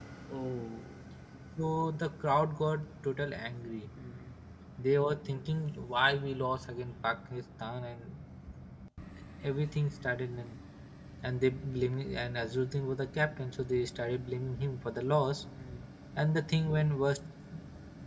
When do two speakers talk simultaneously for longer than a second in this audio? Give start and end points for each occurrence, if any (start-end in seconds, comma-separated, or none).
none